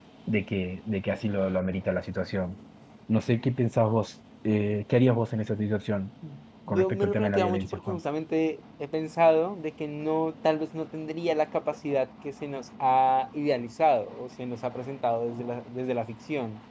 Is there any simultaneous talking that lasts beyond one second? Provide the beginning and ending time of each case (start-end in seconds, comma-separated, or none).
6.7-8.0